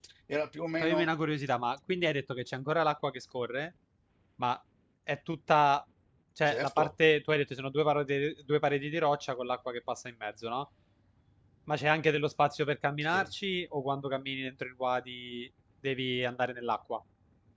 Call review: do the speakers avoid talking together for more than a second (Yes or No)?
Yes